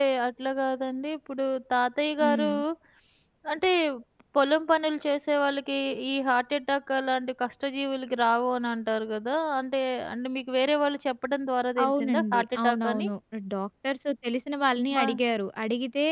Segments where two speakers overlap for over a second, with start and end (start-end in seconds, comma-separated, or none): 11.8-13.1